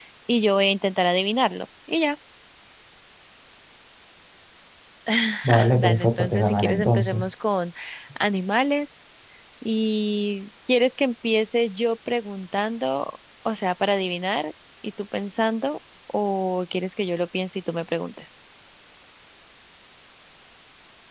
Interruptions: present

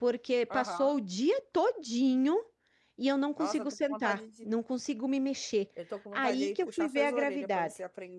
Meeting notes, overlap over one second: present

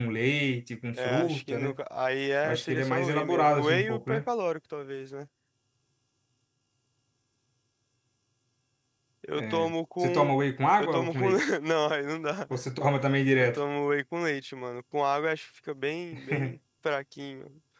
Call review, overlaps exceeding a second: present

